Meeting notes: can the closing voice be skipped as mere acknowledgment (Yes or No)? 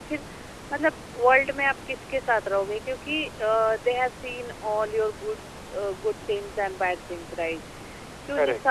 Yes